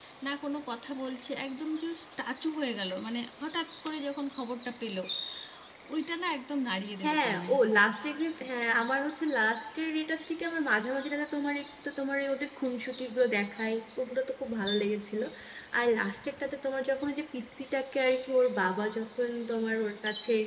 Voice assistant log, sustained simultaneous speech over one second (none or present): none